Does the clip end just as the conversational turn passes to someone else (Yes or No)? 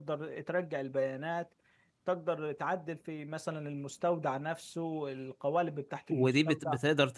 Yes